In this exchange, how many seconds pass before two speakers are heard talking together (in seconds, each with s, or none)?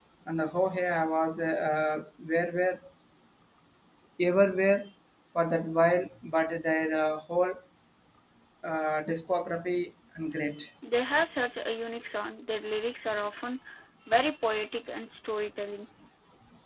none